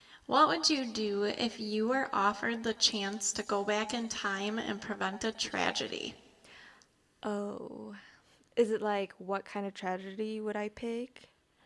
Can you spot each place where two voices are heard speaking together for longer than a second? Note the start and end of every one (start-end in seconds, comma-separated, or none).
none